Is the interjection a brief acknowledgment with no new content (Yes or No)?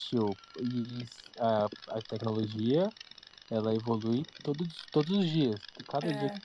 Yes